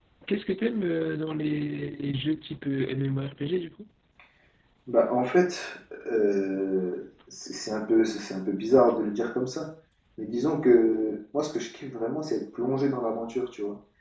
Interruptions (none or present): none